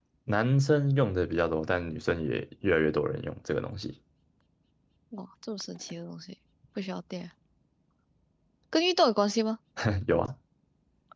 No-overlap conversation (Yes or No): Yes